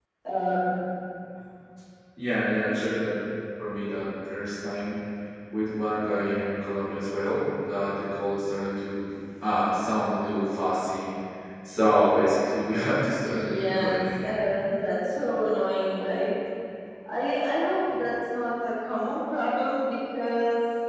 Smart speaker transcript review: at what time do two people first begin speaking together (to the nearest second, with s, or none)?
13 s